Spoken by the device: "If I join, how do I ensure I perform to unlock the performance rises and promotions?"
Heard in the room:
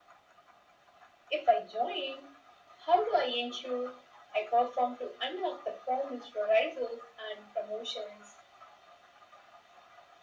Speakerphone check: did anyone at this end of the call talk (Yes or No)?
No